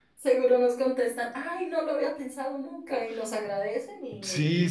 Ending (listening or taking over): taking over